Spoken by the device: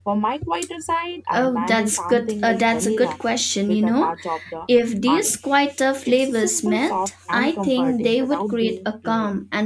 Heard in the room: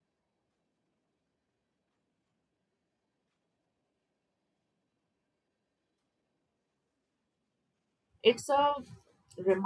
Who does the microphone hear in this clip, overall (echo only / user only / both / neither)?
user only